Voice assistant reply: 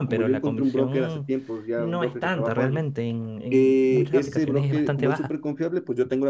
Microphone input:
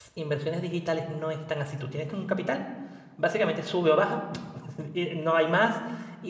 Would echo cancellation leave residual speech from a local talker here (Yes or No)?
Yes